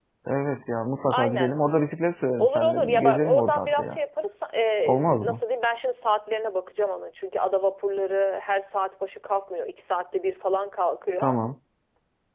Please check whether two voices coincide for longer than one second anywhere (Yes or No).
Yes